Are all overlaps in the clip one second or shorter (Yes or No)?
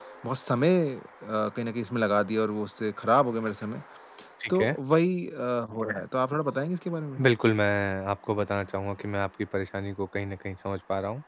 Yes